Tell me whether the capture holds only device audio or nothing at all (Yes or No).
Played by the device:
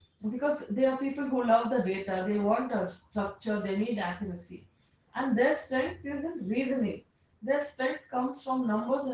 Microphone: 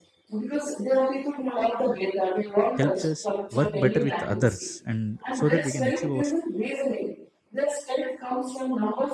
No